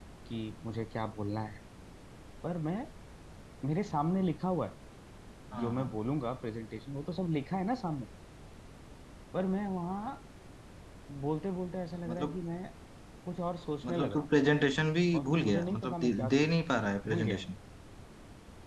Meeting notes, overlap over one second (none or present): present